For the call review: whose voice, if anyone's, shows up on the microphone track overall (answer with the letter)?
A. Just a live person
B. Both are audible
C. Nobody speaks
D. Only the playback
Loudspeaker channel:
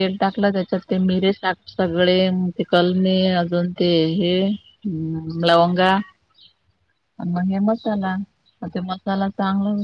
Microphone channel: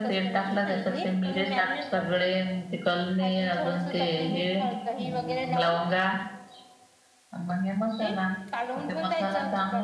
B